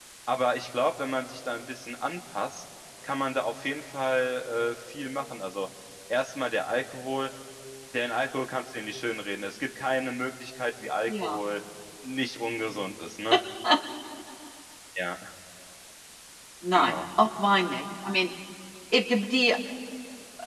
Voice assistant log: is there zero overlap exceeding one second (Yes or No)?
Yes